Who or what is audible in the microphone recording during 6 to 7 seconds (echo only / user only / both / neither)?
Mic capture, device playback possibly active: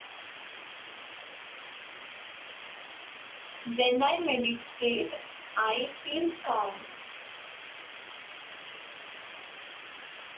user only